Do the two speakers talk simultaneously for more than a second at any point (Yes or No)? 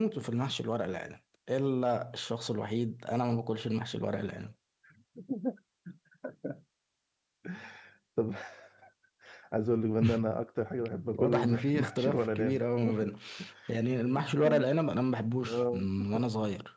Yes